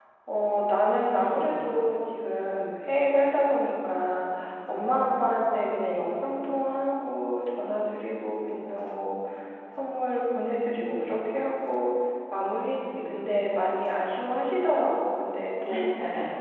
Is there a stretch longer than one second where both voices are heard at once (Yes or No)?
No